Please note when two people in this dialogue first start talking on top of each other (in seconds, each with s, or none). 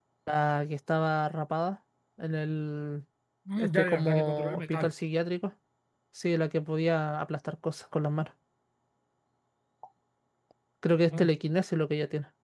3.6 s